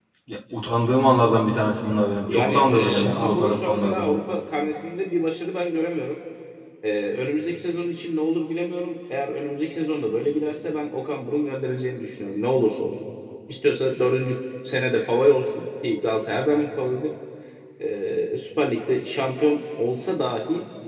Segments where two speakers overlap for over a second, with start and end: 2.3-4.1

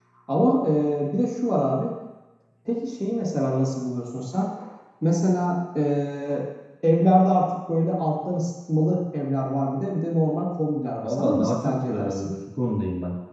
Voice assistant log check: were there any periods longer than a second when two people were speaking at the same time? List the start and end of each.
11.0-12.3

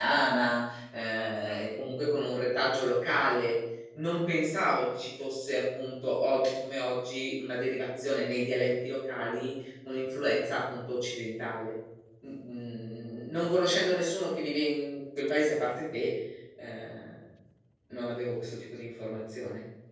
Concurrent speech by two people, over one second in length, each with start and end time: none

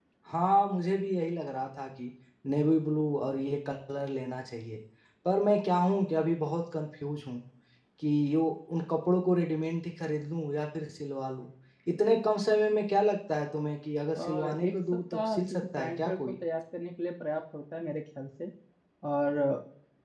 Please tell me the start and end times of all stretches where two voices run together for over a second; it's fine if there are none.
14.2-16.3

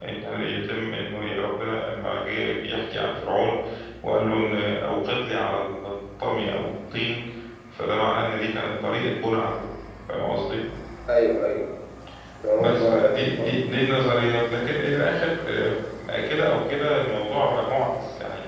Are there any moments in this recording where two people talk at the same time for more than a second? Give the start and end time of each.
12.6-14.3

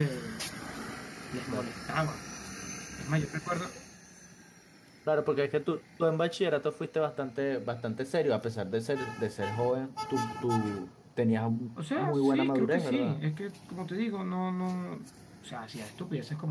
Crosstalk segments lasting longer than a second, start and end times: 12.0-13.2

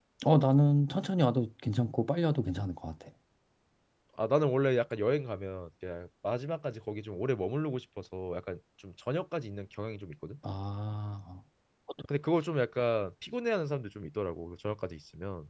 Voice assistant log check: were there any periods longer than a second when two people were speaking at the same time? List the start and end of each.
none

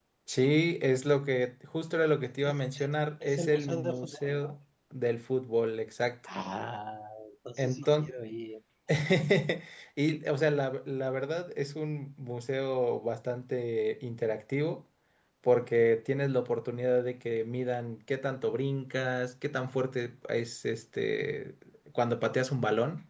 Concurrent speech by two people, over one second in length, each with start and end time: 3.2-4.5

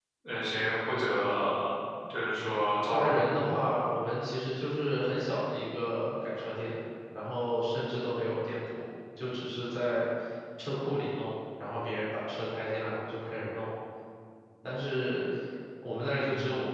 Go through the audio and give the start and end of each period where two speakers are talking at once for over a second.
none

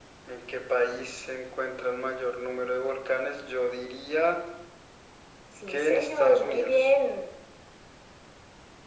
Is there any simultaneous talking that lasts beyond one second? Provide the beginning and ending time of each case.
5.7-6.9

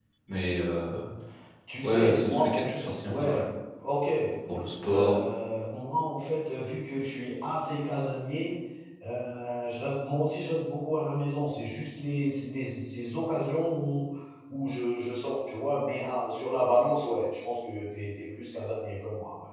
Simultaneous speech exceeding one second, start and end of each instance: 1.8-3.4

